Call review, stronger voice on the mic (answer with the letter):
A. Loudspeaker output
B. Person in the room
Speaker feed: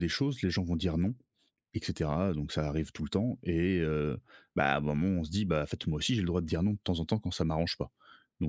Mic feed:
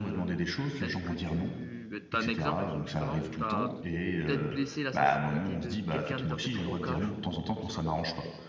A